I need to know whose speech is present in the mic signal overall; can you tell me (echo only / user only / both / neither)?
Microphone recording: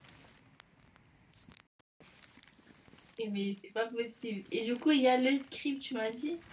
user only